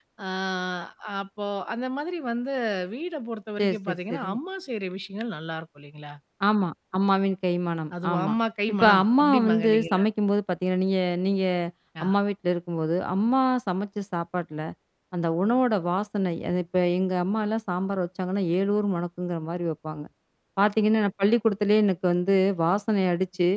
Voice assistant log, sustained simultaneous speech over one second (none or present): present